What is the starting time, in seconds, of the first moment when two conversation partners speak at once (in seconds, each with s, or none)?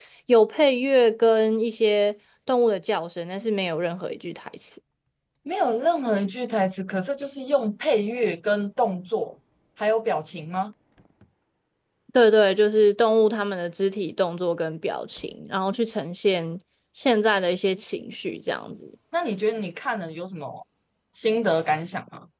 none